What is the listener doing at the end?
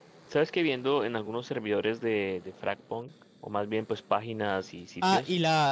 taking over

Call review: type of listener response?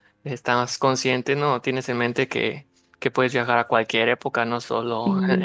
listening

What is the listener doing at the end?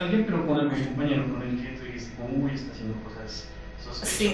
taking over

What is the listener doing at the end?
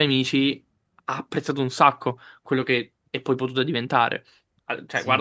listening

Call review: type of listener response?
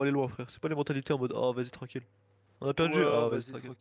taking over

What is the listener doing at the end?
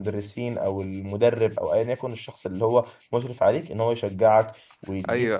taking over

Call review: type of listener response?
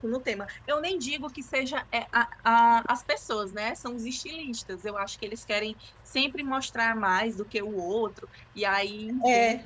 taking over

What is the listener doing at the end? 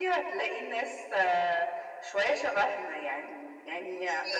listening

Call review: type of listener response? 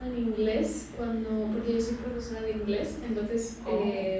listening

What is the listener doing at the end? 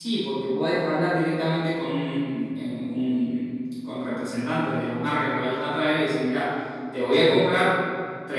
listening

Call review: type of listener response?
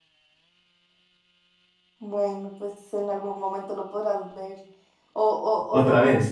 listening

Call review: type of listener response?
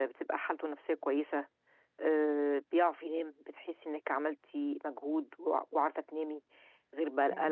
listening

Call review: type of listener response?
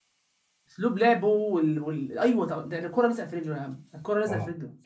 taking over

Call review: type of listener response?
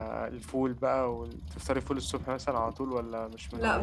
taking over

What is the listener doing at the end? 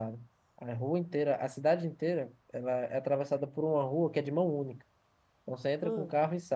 listening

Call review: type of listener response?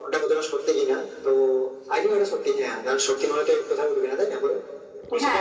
taking over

